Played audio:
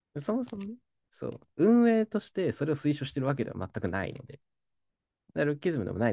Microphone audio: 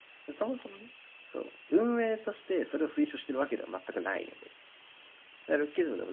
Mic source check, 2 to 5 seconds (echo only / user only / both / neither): echo only